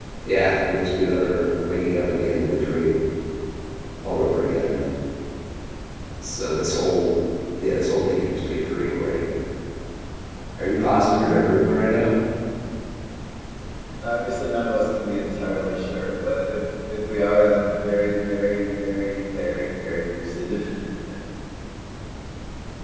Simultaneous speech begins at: none

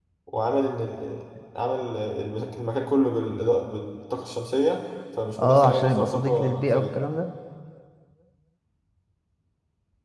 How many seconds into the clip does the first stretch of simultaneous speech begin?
5 s

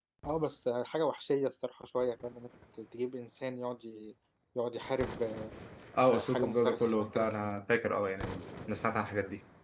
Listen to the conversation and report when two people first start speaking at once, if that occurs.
6 s

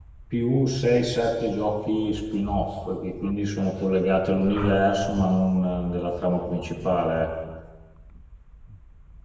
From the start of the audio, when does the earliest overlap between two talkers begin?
none

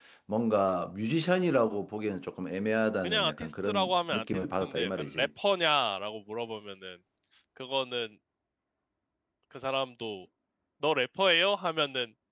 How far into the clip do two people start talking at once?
3 s

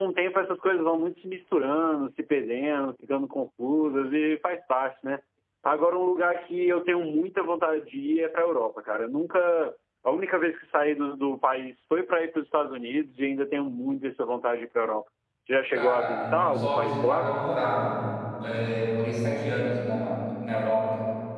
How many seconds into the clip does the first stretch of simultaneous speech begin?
16 s

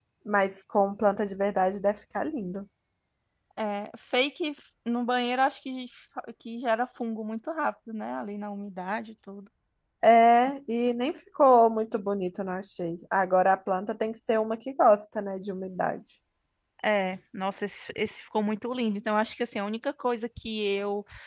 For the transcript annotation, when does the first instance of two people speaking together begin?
none

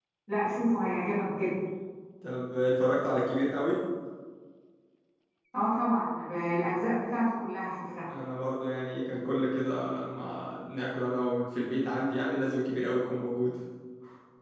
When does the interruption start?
none

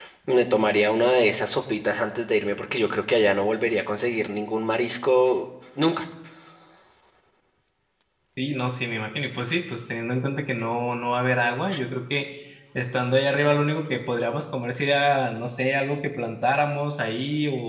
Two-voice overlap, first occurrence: none

